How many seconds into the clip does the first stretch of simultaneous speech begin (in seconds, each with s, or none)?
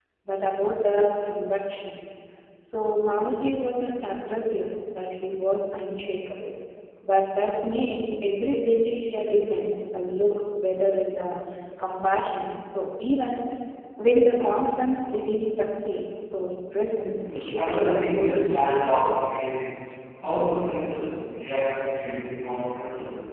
17.2 s